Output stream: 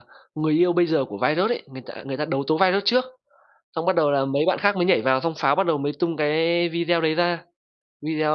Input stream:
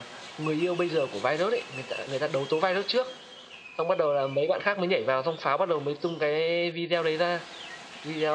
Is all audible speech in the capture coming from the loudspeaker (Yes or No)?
Yes